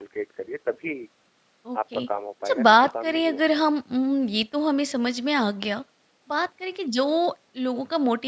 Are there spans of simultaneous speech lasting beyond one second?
Yes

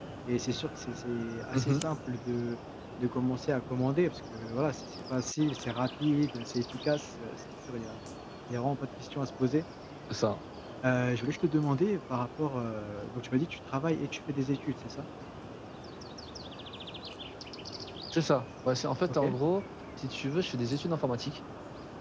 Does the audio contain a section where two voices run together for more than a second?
No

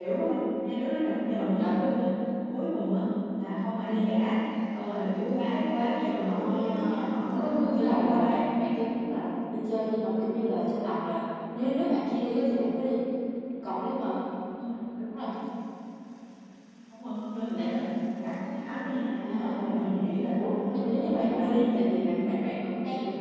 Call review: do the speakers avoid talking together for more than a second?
No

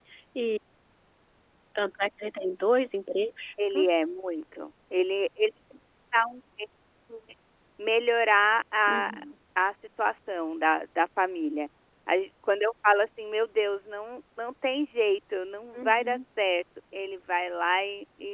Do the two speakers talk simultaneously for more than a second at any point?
No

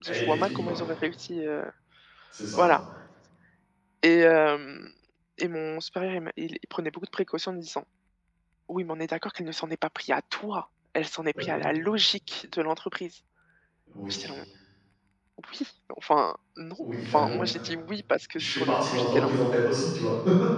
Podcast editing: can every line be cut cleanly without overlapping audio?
No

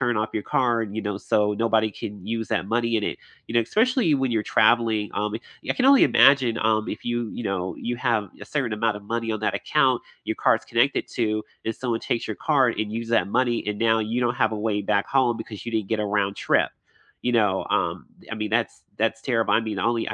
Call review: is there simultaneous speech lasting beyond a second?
No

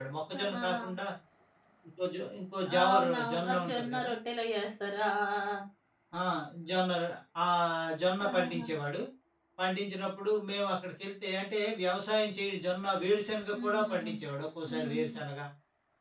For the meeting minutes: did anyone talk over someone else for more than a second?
Yes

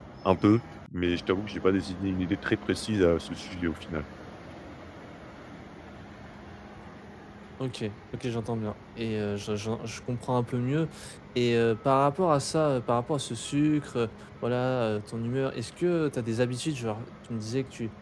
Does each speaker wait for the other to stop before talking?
Yes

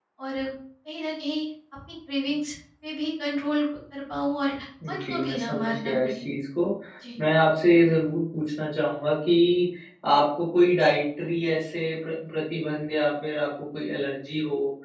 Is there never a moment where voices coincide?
No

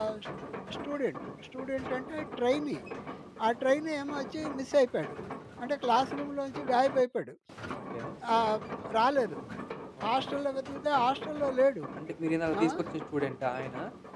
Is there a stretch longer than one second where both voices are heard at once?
No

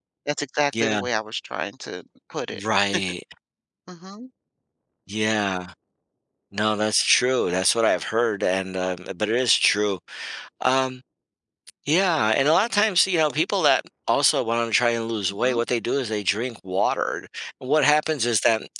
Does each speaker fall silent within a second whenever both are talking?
Yes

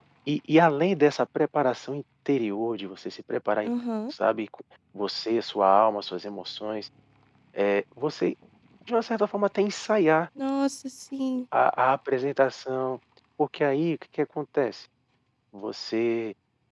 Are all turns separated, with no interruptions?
Yes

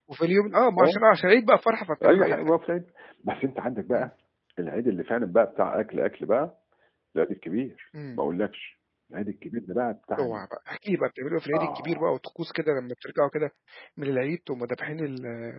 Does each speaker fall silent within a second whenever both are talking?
Yes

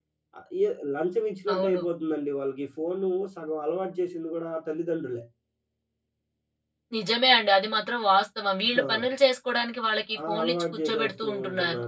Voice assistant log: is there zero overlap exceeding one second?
No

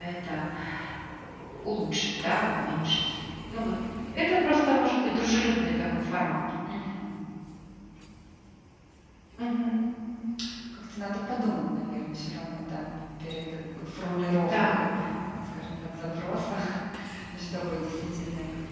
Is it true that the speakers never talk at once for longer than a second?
Yes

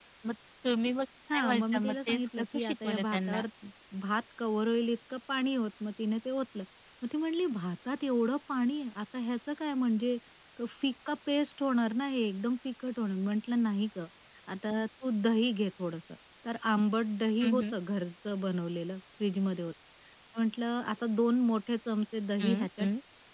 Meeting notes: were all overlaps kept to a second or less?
No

